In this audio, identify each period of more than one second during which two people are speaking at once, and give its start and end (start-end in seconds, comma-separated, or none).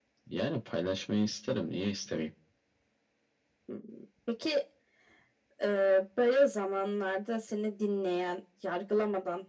none